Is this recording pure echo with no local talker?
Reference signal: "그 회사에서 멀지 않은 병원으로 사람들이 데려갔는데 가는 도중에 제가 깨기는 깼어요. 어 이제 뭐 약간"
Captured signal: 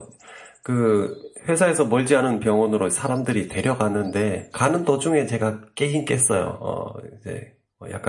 Yes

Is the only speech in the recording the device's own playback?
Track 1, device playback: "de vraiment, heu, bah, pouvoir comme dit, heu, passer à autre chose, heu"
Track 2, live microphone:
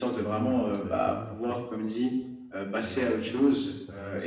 No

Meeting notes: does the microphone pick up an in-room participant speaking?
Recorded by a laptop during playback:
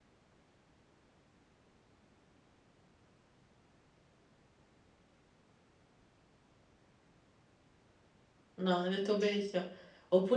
Yes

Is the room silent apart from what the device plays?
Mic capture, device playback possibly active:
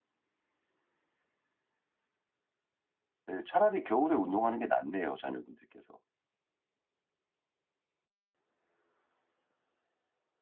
No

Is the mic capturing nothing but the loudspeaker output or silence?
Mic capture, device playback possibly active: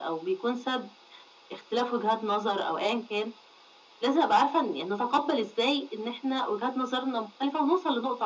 Yes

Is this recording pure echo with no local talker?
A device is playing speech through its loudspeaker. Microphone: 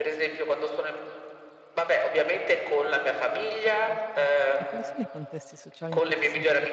No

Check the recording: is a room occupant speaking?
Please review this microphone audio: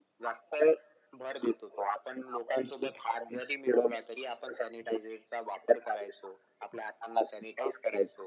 No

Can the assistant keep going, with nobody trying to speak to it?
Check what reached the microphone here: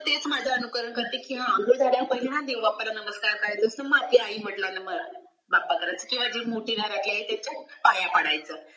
Yes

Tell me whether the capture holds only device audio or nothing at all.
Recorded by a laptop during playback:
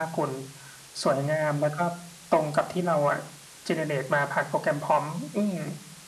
Yes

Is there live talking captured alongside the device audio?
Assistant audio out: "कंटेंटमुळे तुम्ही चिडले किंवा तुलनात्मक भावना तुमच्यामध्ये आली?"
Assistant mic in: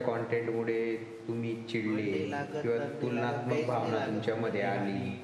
Yes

